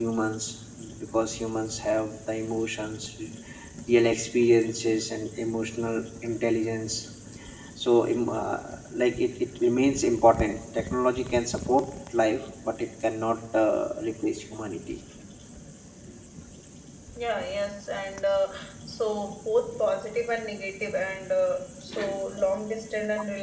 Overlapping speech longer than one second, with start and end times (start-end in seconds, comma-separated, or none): none